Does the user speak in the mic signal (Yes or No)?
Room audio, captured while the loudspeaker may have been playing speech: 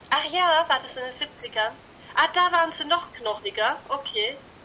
No